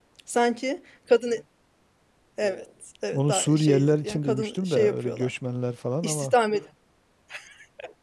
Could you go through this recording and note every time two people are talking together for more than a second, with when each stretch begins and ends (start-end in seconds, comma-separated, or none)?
3.1-5.3